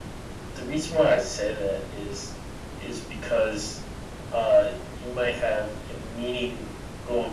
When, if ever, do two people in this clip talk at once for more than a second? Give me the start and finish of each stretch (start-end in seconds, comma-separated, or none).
none